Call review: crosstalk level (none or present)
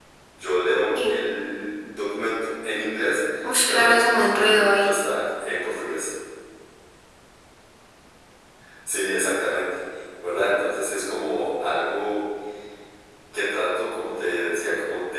present